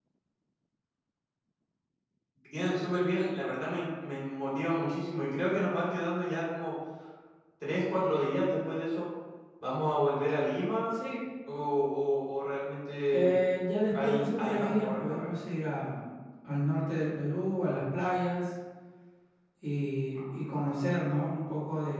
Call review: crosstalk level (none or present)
present